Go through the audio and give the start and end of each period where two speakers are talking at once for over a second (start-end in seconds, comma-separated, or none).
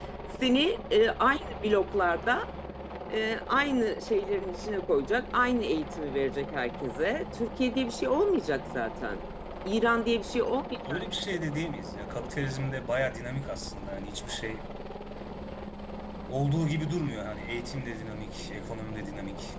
none